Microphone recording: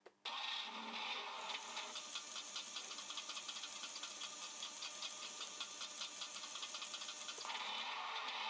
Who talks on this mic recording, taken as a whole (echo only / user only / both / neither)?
neither